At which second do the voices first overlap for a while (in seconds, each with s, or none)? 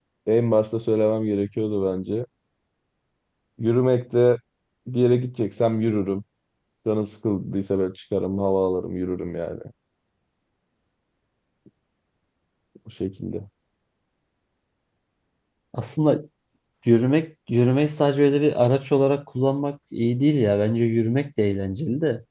none